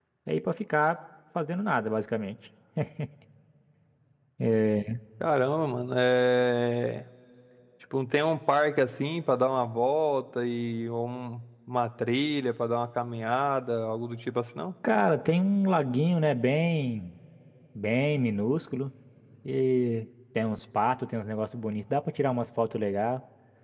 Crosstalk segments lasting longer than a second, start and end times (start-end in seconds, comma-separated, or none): none